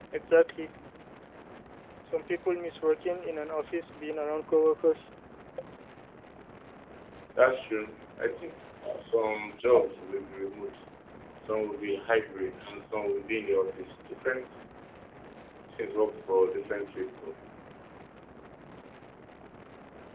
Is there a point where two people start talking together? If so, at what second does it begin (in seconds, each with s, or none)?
none